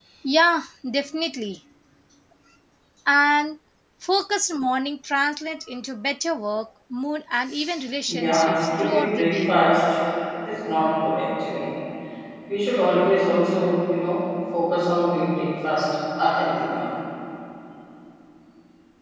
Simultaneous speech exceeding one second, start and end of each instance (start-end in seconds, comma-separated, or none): 8.1-9.6